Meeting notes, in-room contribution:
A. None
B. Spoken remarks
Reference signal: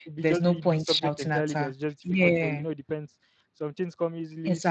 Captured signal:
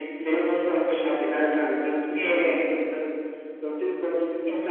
A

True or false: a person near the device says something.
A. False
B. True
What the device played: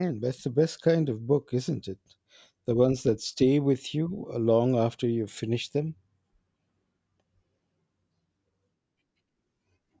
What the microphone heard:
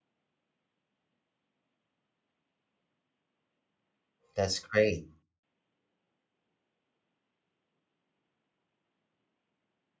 B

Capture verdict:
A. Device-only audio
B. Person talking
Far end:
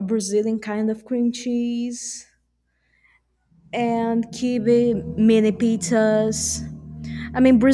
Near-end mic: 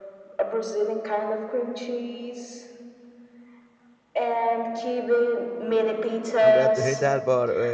B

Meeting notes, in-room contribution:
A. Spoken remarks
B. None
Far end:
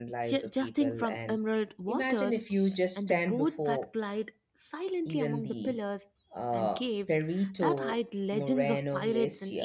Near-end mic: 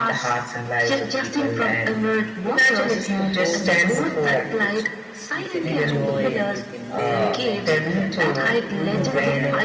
A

